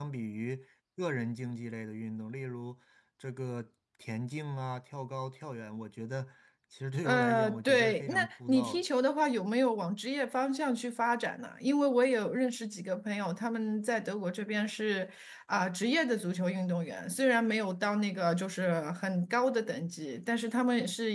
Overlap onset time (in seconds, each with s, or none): 7.0 s